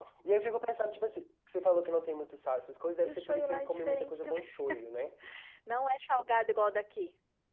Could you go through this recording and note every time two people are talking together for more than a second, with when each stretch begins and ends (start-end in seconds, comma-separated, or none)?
3.0-4.4